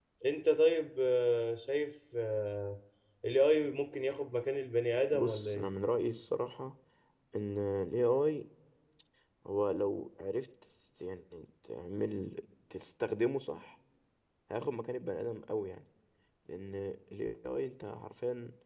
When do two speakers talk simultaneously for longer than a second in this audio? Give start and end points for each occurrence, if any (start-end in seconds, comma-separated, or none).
none